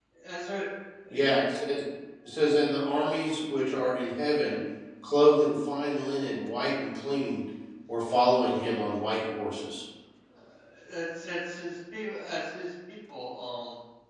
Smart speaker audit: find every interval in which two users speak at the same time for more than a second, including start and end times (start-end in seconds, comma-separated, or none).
none